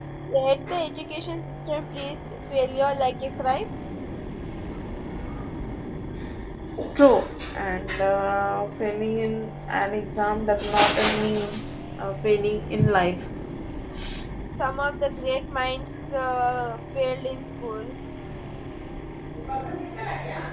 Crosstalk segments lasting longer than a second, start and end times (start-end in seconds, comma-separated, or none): none